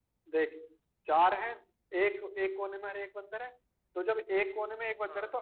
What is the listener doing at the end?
listening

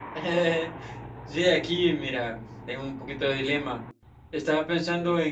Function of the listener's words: listening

